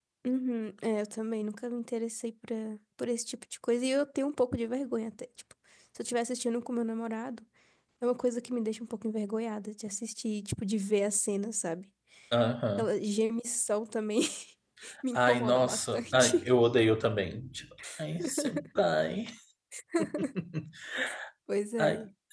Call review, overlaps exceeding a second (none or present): present